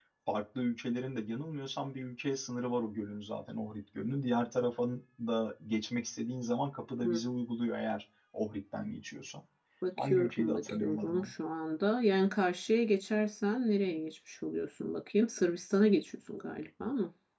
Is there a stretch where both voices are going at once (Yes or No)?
Yes